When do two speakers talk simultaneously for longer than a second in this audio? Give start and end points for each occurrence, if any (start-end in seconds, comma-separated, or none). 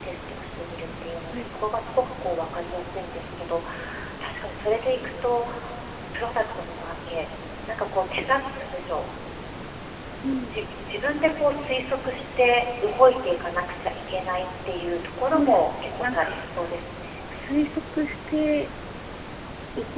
15.2-16.5